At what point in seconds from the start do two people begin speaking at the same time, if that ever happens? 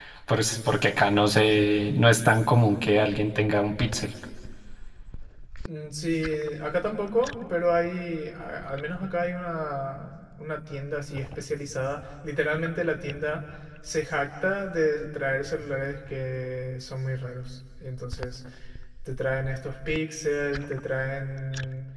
none

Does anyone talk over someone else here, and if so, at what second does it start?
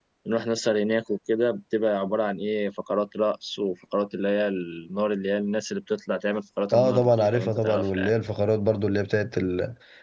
6.7 s

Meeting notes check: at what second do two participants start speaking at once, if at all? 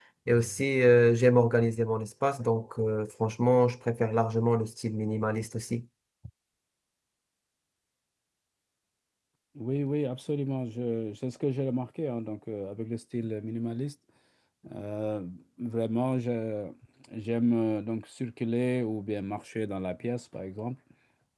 none

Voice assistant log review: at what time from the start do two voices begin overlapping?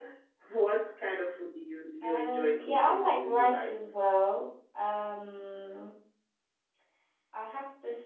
2.0 s

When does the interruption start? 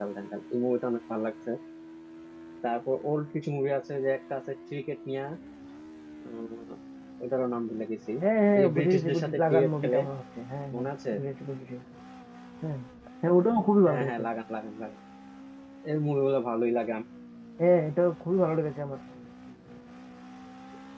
8.6 s

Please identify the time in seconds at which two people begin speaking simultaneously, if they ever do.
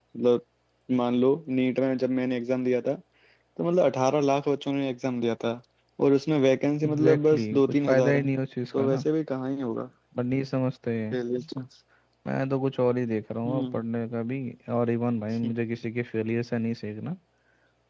6.8 s

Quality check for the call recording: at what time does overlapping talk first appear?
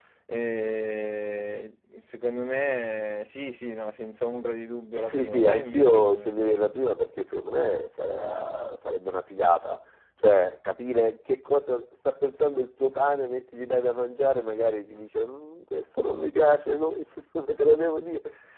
5.0 s

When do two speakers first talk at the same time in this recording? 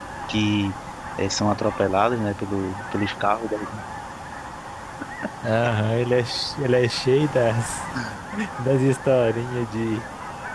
none

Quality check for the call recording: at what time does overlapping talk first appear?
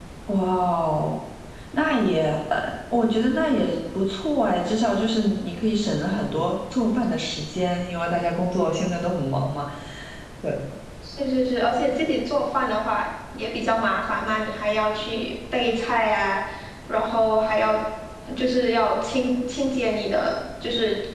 none

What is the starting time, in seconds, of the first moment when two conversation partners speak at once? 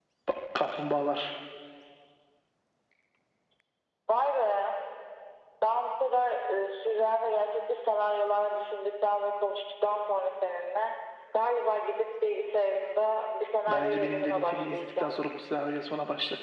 13.7 s

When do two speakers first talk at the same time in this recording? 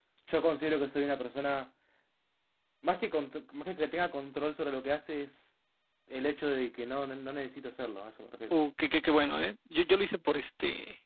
none

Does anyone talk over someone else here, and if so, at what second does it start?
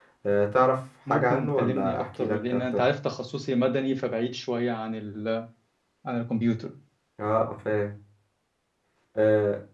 1.1 s

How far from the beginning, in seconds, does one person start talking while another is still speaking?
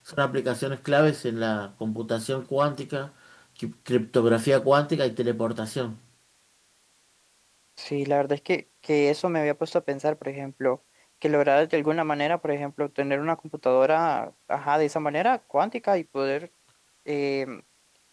none

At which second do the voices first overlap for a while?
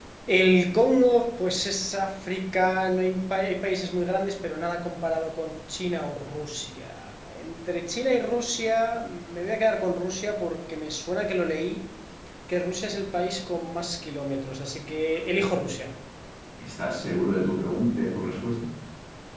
none

